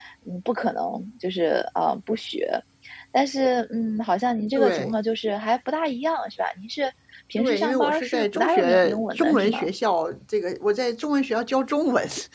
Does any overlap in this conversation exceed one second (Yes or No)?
Yes